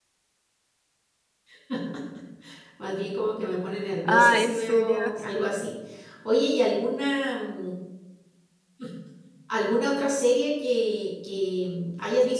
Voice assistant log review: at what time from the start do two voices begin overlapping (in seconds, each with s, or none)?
4.0 s